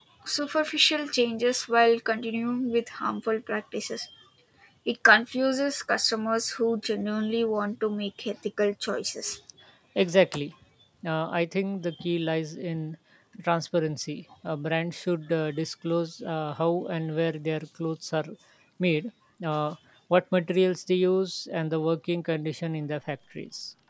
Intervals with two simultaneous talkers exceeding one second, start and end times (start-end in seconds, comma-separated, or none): none